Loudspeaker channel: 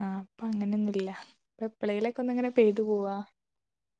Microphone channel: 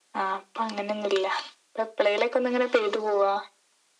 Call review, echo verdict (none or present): present